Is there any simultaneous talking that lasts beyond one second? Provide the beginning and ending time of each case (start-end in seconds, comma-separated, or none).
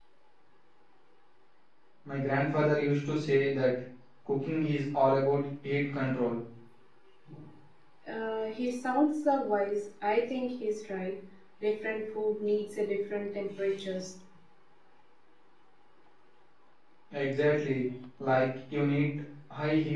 none